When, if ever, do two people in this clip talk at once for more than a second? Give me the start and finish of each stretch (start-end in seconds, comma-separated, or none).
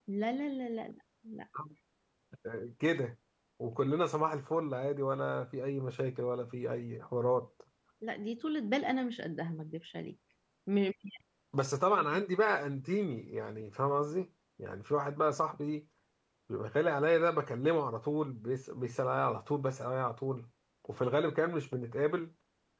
none